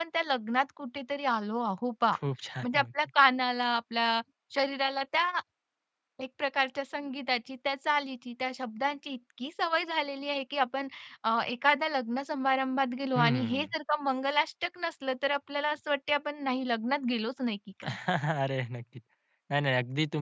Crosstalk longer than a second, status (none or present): none